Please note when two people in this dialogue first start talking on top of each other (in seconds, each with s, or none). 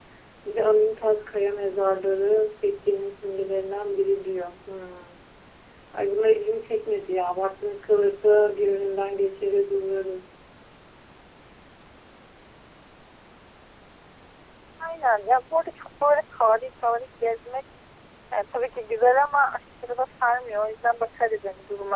none